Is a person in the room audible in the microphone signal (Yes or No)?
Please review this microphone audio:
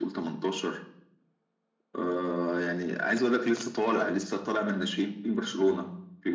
No